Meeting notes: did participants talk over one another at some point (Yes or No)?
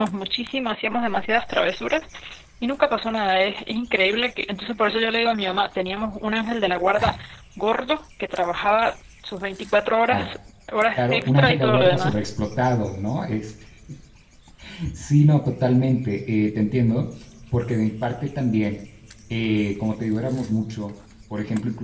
Yes